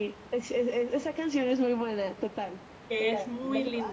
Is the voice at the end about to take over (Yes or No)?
Yes